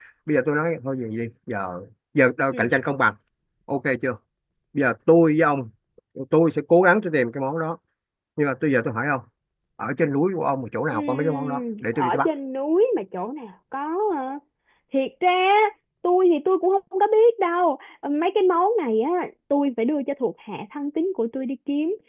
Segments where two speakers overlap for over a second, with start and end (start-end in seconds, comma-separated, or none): 10.9-12.3